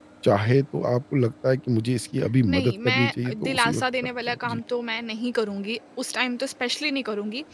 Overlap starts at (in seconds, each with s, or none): 2.4 s